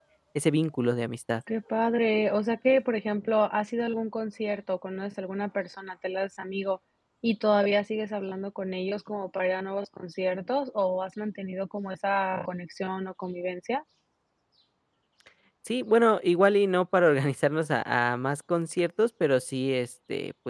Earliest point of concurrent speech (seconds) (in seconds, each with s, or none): none